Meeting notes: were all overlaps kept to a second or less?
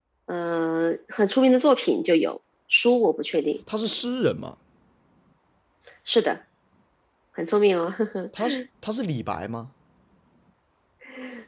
Yes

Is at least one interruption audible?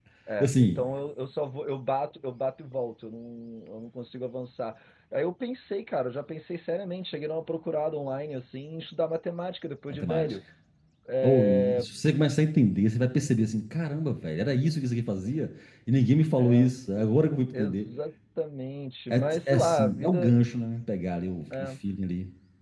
Yes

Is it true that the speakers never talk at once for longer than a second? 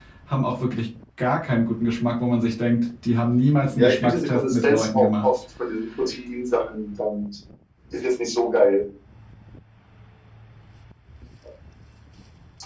No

